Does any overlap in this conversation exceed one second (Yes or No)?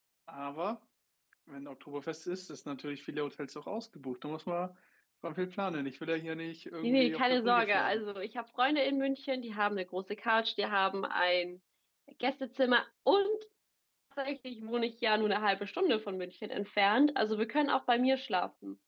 Yes